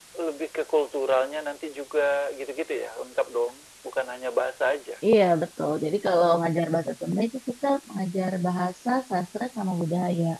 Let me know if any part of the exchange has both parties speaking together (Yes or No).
No